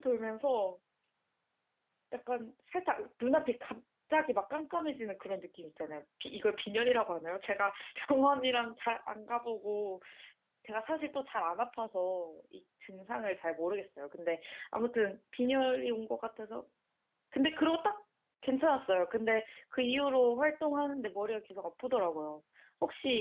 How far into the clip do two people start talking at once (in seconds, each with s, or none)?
none